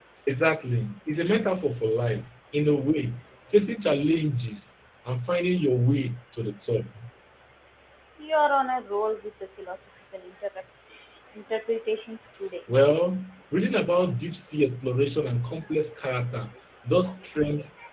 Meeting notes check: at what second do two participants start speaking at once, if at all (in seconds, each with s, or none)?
none